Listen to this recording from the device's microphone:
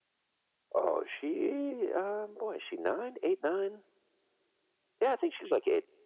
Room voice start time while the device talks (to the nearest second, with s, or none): none